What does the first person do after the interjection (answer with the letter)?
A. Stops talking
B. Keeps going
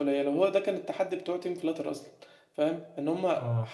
B